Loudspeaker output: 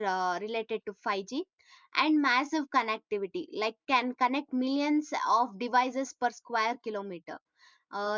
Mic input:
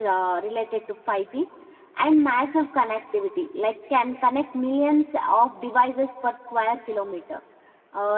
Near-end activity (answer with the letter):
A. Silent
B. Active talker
A